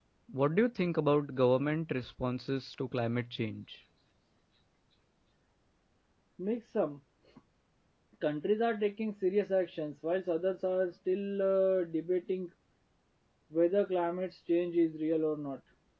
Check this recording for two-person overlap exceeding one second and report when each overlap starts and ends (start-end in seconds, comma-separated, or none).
none